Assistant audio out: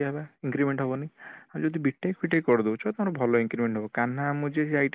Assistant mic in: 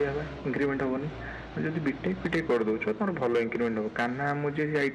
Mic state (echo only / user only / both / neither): echo only